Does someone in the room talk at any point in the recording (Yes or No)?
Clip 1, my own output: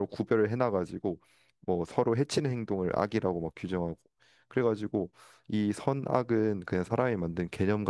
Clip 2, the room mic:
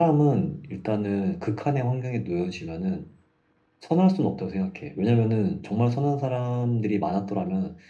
Yes